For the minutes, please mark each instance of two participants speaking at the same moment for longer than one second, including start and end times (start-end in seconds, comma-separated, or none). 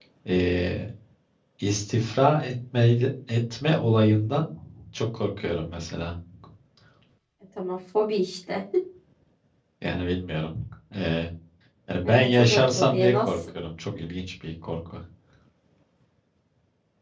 12.0-13.3